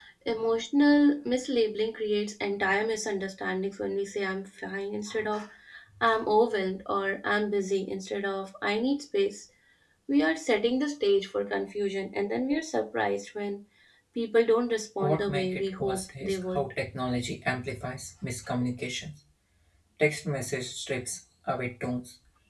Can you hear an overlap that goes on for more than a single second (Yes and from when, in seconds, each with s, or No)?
Yes, from 15.0 s